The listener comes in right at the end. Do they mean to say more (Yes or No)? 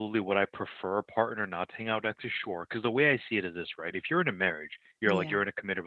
No